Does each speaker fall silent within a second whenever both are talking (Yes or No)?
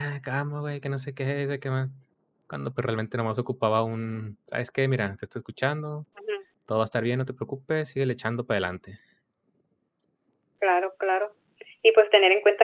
Yes